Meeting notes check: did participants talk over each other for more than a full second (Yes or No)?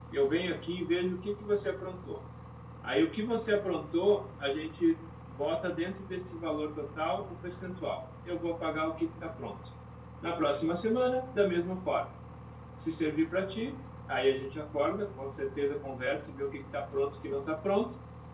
No